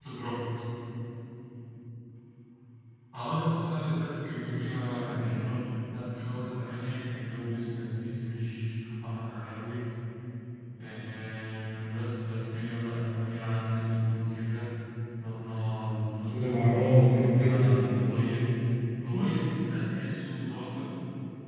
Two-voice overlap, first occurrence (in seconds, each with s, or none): 16.3 s